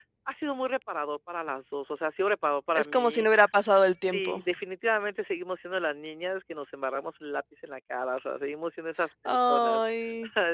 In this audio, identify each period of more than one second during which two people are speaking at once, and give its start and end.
none

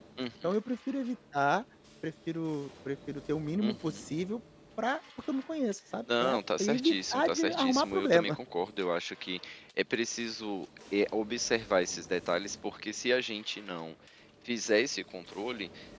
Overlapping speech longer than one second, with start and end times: 6.2-8.4

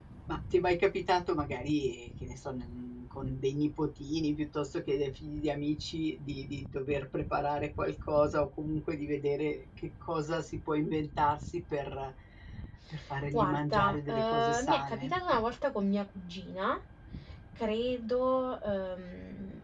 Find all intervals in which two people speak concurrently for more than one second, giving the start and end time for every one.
13.3-15.1

